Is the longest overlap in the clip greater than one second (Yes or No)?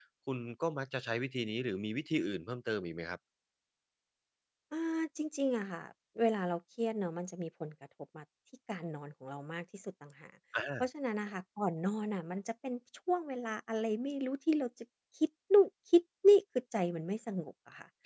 No